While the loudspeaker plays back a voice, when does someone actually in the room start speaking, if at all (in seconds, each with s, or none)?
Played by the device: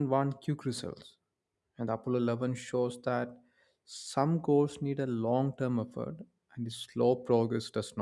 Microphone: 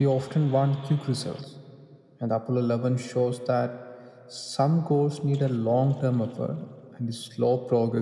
none